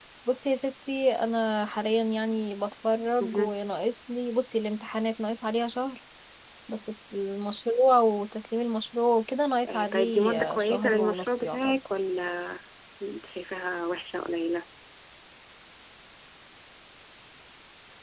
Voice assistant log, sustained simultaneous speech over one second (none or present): present